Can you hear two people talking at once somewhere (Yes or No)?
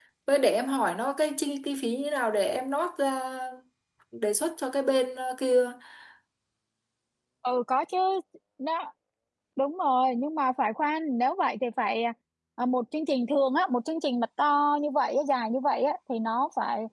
No